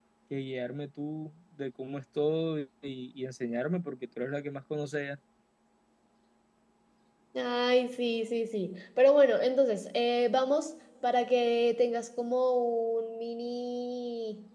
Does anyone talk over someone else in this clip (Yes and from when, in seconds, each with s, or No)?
No